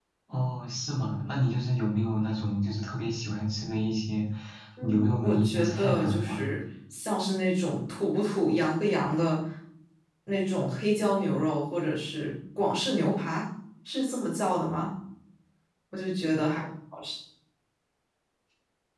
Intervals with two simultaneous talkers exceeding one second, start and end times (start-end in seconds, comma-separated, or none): 4.8-6.4